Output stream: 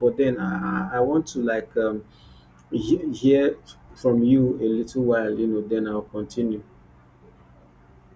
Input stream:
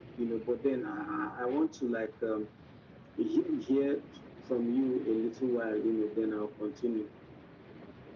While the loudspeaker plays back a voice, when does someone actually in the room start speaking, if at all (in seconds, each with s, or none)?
none